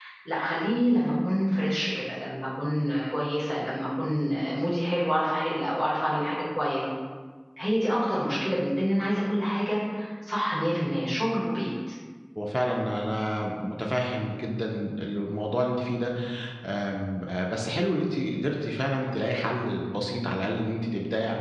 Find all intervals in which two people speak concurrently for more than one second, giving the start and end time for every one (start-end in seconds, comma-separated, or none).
none